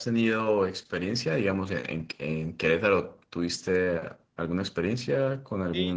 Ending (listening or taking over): taking over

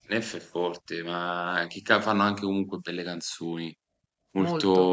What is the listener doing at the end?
taking over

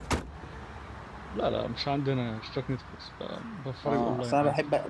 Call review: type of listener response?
taking over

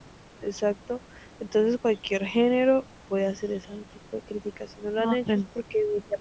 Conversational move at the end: listening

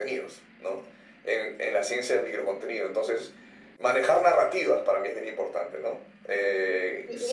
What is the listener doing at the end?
taking over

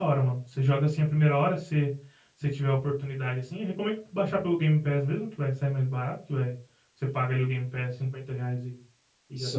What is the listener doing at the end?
listening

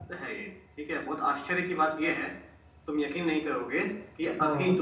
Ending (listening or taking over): listening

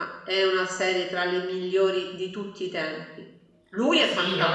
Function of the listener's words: taking over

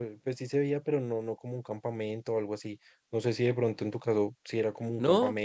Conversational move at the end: taking over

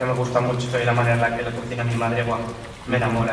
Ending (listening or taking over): taking over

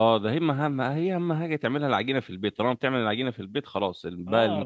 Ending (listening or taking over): taking over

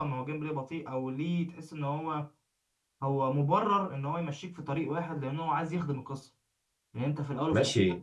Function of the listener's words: taking over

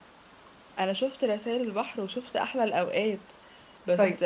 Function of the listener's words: listening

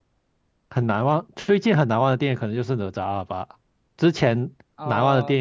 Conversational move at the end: listening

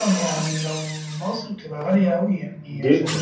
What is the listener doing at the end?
taking over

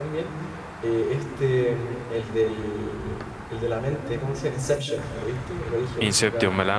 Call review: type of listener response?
taking over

